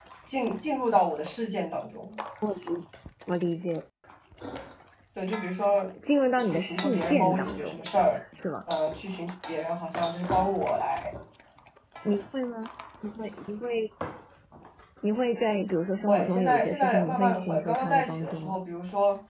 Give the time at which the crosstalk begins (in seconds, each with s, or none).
6.5 s